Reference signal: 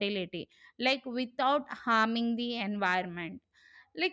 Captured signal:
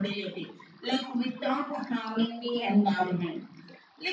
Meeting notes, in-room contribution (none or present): none